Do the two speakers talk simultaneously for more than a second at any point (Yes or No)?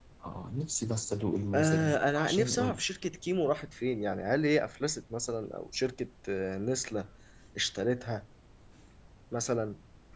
Yes